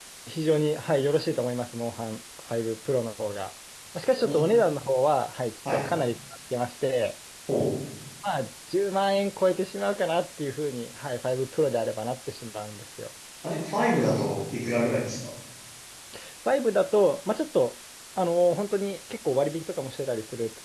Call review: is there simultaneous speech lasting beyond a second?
No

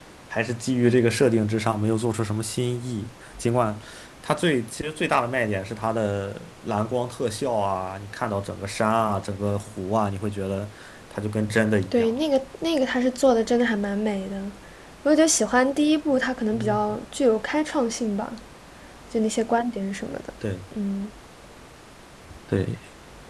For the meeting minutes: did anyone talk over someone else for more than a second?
No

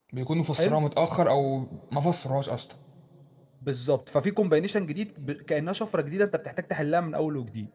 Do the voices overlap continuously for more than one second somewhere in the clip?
No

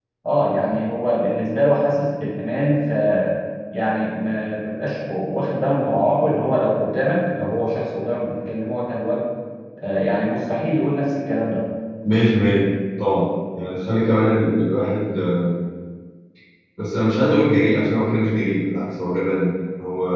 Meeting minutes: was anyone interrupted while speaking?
No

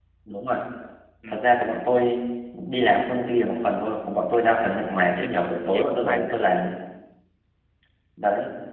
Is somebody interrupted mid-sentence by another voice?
Yes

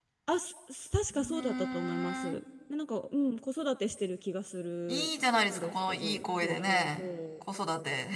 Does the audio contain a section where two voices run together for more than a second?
Yes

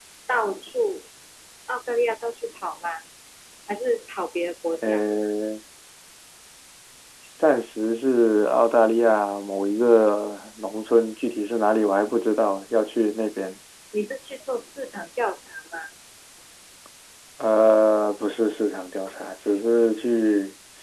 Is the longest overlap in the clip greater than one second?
No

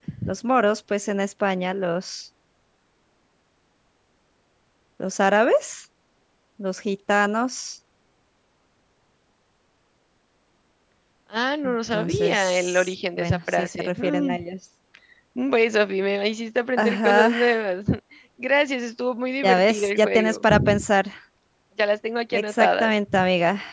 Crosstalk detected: Yes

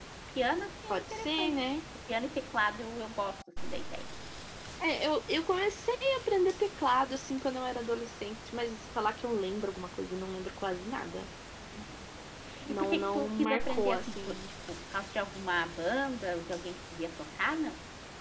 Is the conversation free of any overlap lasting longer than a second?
No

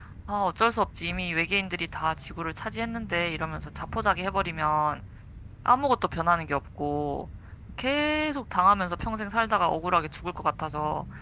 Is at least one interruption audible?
No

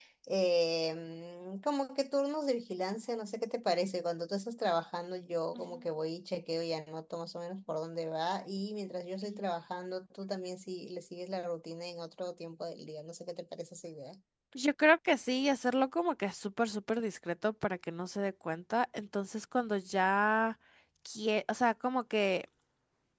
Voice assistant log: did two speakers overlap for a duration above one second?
No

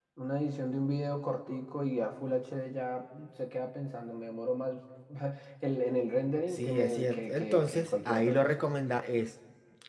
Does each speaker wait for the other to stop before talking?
No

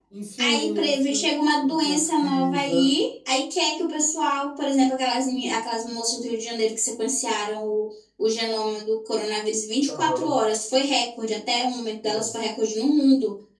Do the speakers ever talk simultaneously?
Yes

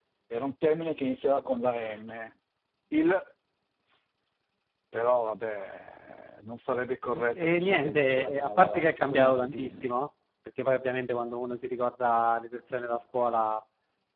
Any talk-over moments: Yes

